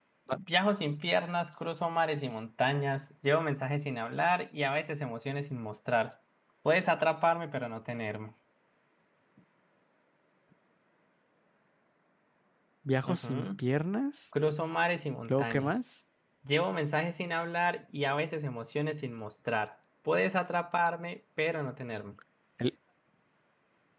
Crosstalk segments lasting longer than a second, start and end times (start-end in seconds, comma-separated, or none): none